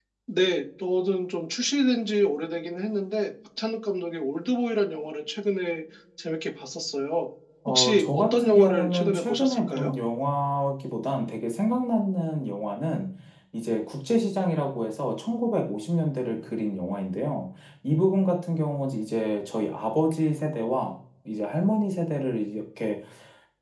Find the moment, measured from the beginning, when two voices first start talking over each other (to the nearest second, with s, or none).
8 s